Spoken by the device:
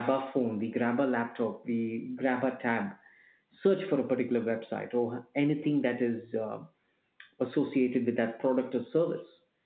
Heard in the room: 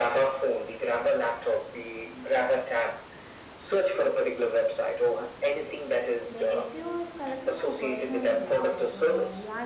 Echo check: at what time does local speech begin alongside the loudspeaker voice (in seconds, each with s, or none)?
6.3 s